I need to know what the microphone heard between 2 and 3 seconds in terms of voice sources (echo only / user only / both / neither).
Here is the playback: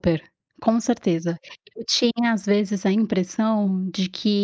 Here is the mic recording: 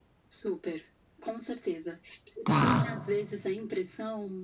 both